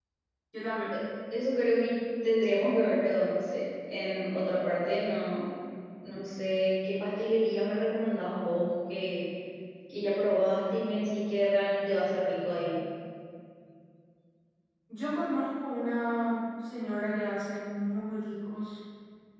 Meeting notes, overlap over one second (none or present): none